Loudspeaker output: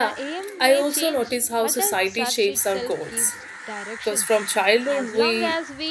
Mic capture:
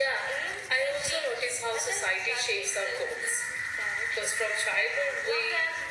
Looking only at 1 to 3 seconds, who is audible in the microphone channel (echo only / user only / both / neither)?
echo only